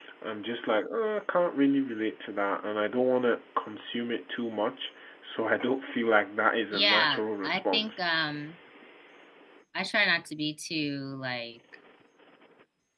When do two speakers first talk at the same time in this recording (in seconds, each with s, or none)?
6.7 s